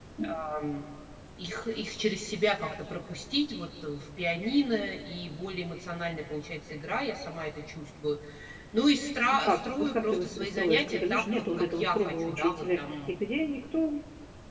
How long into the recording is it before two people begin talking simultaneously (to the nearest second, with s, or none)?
9 s